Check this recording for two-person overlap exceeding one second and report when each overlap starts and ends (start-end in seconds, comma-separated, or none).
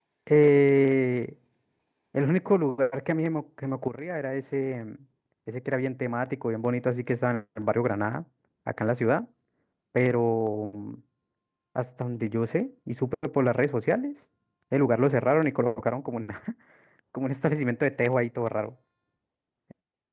none